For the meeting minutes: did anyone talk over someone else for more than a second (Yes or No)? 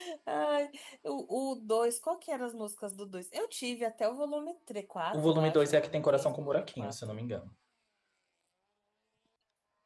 Yes